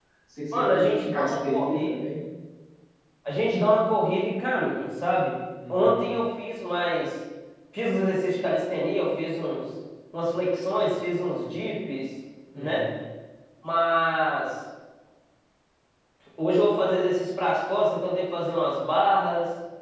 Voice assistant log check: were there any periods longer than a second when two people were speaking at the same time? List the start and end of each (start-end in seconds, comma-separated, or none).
0.5-1.9